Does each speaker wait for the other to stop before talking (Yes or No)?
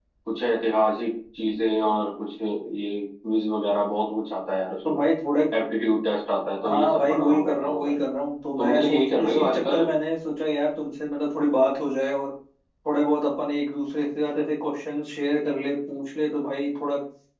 No